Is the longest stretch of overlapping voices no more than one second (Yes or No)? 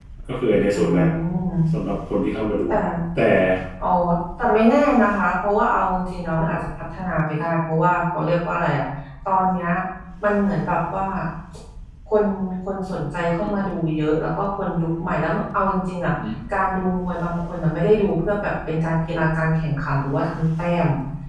Yes